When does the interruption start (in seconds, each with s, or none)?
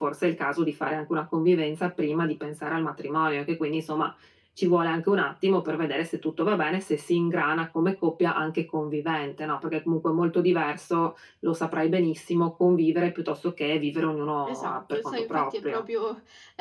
14.4 s